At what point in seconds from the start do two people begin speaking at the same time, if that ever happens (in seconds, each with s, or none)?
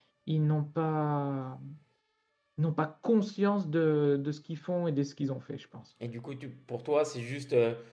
none